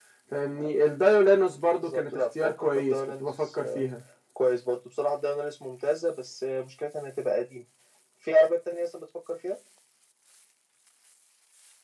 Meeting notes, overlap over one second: present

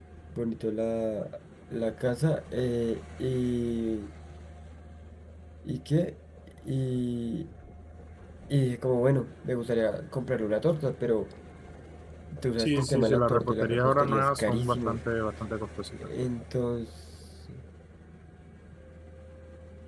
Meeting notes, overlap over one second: present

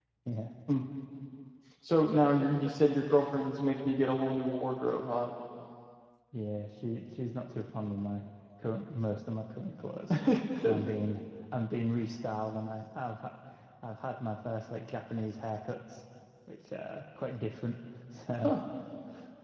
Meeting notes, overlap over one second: none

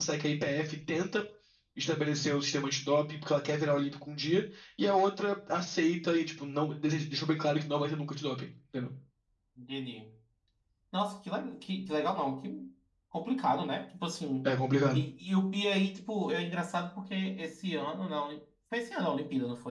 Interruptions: none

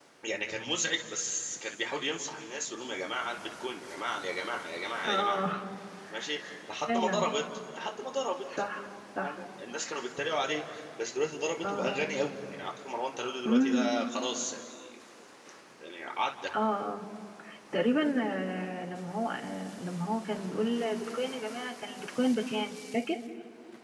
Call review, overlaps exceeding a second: none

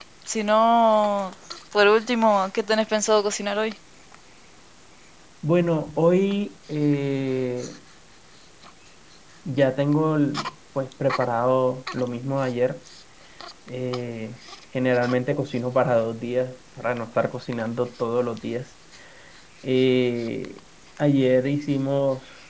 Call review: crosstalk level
none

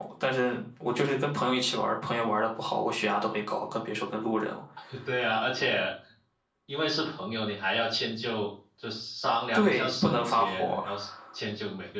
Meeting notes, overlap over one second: present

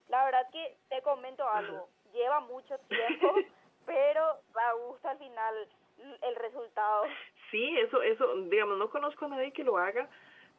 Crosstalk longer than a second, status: none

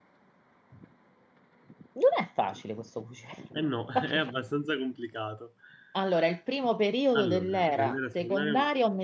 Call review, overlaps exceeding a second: present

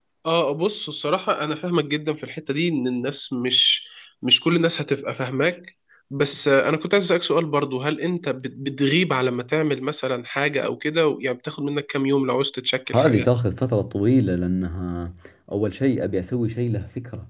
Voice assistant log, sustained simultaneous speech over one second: none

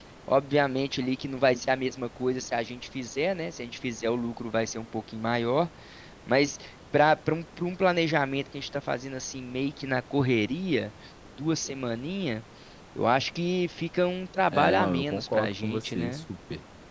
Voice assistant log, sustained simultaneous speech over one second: present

